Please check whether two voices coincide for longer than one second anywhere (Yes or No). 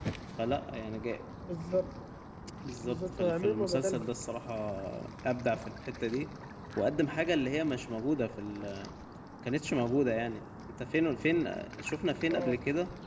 Yes